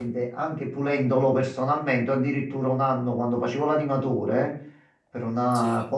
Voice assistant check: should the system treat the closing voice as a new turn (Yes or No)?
No